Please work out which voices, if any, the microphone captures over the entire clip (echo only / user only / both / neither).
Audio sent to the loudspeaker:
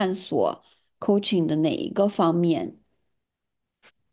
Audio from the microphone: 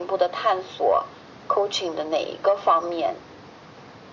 echo only